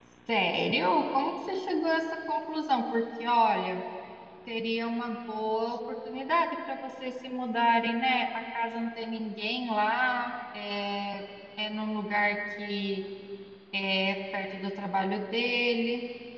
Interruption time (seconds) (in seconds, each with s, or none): none